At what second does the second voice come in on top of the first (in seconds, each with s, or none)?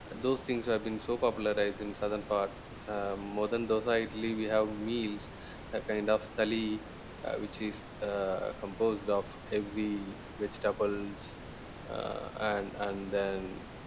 none